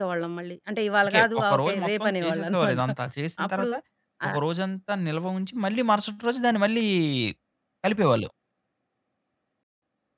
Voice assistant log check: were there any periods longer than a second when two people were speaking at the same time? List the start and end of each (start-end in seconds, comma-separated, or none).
1.1-2.8